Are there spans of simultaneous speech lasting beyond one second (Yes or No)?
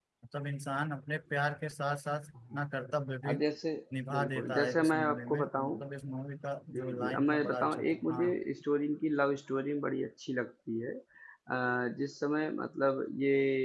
Yes